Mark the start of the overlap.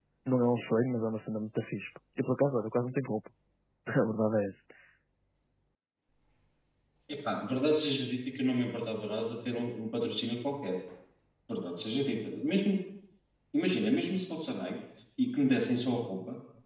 none

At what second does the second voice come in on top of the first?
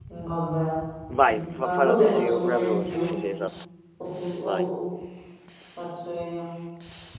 1.3 s

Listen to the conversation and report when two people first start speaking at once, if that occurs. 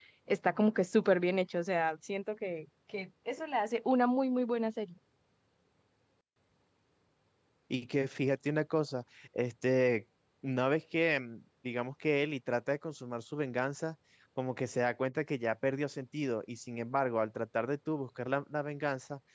none

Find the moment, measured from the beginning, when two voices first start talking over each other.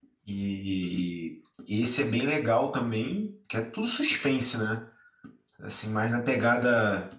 none

